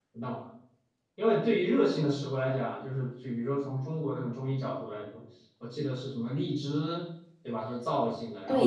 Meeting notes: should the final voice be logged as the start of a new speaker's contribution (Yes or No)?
Yes